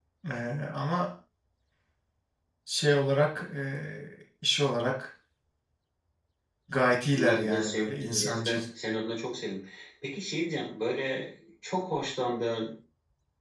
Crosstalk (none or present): present